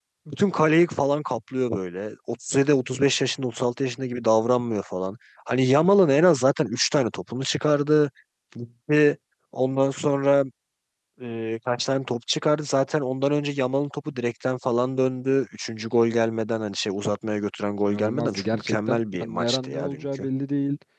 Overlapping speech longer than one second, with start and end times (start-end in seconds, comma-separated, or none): 17.8-20.3